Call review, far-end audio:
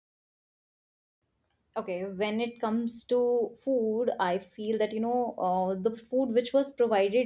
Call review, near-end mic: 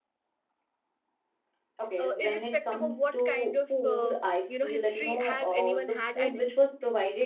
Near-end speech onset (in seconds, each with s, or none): 2.0 s